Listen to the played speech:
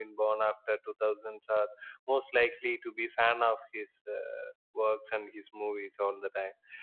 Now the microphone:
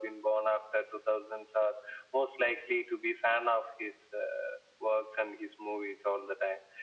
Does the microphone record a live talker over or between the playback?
No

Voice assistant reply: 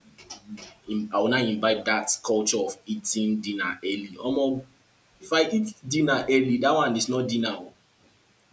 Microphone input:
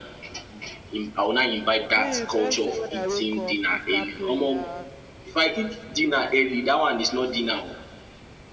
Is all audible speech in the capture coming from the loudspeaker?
No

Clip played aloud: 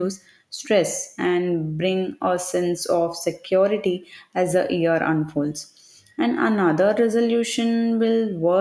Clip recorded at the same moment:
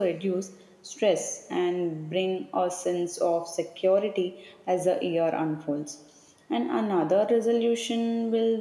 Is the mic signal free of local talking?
Yes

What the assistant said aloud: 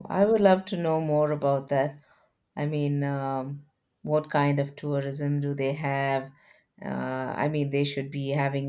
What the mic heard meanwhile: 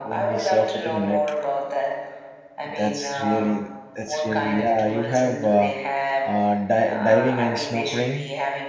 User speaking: Yes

